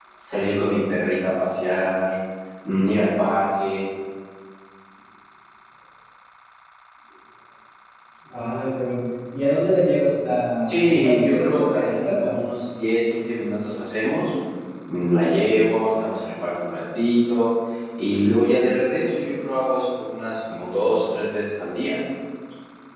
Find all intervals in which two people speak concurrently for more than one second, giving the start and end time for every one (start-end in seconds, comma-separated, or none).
10.7-12.4